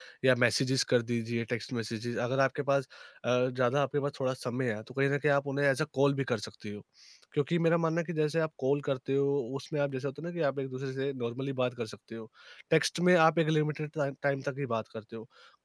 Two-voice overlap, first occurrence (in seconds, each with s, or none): none